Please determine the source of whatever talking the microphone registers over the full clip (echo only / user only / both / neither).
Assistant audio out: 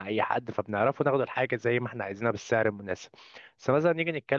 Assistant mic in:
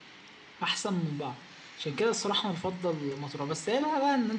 user only